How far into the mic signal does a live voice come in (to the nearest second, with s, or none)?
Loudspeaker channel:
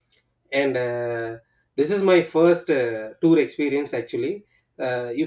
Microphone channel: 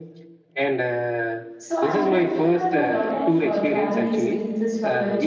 2 s